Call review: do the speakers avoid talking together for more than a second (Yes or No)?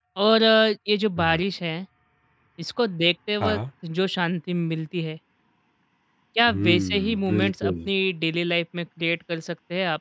No